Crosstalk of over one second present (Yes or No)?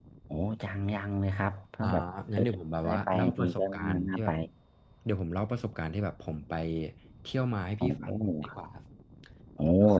Yes